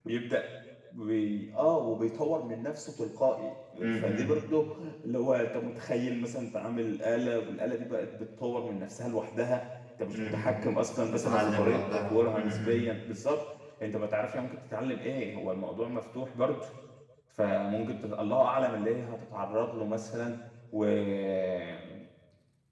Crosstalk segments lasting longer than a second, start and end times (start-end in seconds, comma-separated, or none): 11.0-12.8